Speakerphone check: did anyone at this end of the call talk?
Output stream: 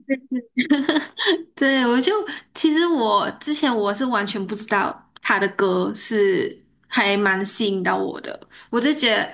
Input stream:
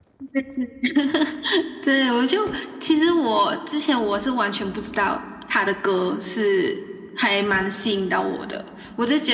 No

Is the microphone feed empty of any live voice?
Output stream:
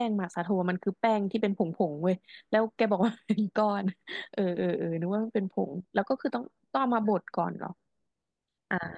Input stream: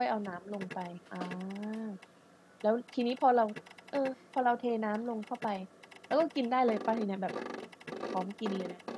No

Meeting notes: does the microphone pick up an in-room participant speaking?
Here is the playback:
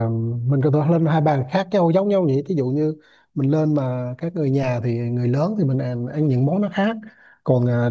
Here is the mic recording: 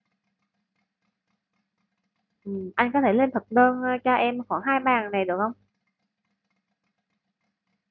Yes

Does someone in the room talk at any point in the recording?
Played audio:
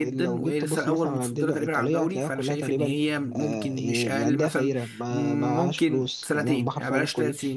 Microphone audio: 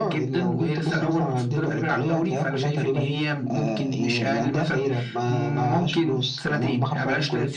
No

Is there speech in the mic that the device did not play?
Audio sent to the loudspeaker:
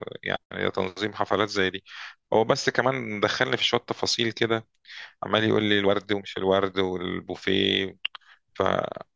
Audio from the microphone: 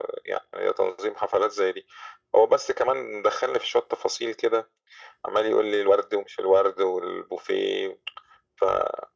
No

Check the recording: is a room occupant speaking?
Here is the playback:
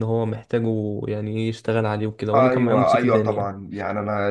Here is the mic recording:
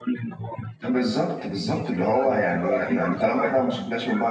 Yes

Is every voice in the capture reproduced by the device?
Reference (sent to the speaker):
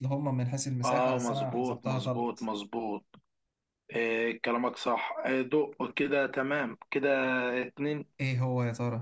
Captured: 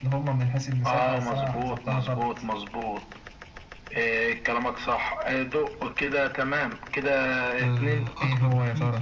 No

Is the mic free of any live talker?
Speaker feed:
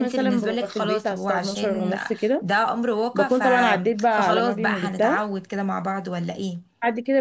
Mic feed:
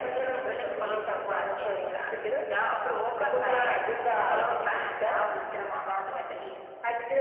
Yes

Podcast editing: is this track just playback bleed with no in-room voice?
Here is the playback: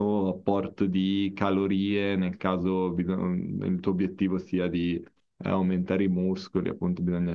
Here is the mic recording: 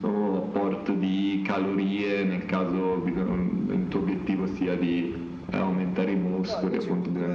No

